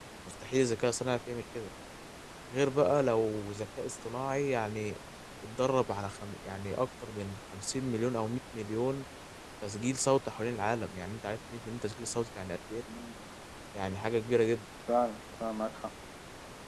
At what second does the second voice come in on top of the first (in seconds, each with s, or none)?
none